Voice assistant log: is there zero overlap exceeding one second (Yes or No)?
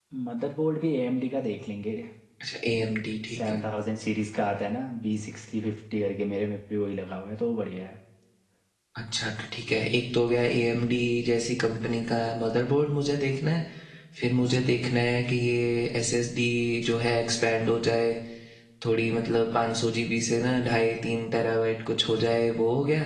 Yes